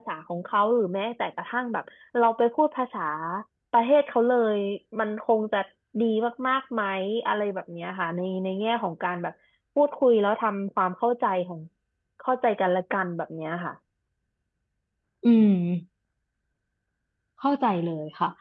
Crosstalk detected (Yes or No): No